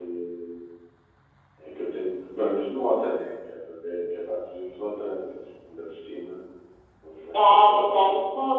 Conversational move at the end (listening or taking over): taking over